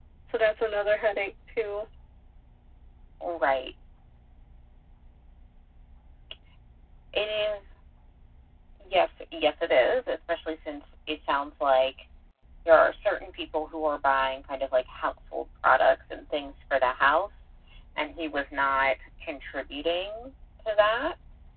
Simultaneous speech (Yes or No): No